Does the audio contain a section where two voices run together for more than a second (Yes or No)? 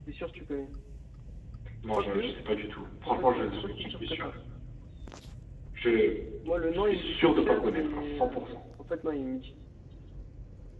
Yes